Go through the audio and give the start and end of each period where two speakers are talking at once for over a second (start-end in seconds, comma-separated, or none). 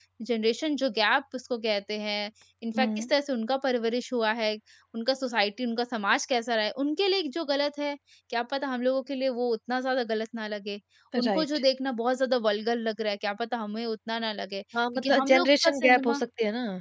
14.9-16.2